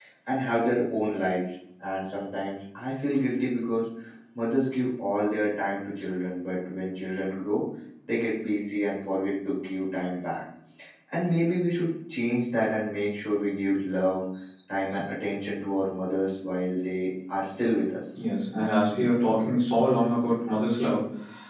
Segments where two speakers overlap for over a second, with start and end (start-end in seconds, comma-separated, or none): none